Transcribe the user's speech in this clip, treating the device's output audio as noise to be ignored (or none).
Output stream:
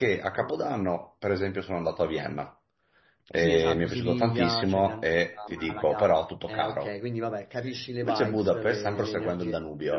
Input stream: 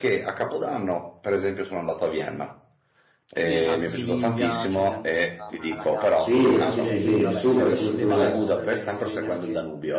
Sì, sì, sì, sì, super cultura,